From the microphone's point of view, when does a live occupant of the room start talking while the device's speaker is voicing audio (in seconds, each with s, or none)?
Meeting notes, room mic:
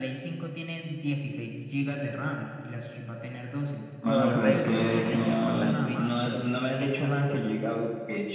4.0 s